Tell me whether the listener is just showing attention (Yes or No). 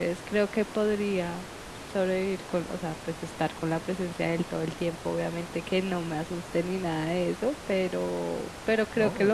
Yes